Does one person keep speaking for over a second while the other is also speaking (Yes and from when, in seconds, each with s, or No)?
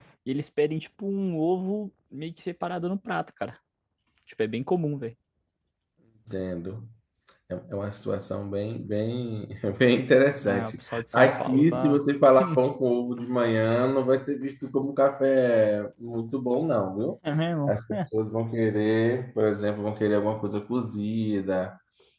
Yes, from 10.4 s